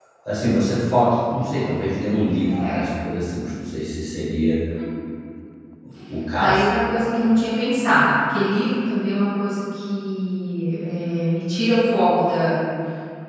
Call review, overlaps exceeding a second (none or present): none